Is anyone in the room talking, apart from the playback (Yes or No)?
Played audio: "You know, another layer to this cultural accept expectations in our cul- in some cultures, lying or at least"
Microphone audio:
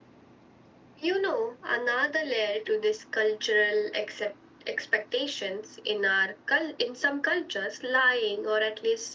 No